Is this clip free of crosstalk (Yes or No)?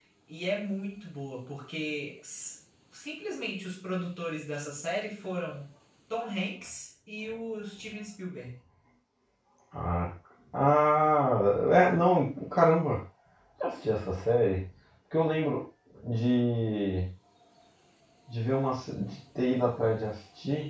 Yes